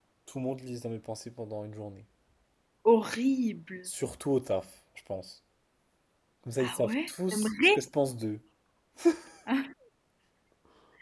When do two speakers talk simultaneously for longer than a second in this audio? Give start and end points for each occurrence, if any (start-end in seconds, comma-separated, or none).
6.6-7.9